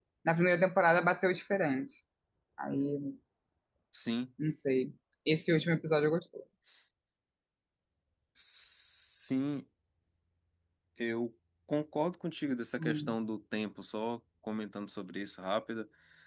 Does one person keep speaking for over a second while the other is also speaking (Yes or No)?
No